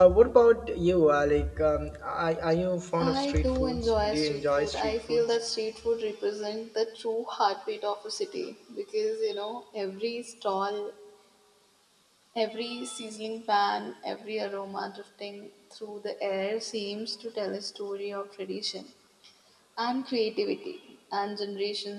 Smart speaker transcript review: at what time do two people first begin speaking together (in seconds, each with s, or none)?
3.0 s